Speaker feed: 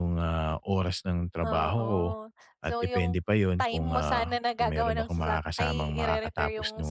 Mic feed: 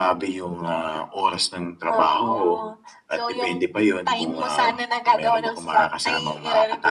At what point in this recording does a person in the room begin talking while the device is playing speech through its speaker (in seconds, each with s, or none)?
none